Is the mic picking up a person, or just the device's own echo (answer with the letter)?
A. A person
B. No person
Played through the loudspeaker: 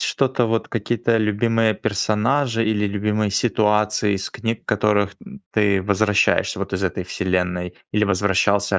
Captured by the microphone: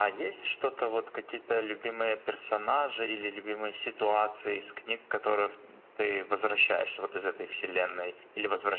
B